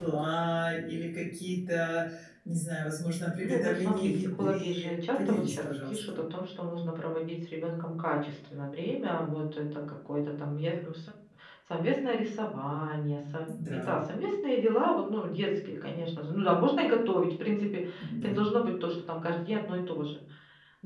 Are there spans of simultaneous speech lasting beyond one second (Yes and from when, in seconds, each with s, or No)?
Yes, from 3.4 s